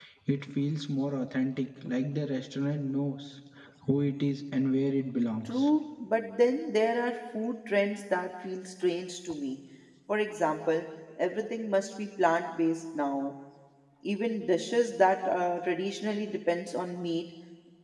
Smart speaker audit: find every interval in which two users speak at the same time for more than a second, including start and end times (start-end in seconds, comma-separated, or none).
none